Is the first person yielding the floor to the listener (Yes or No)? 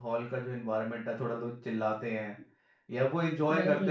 No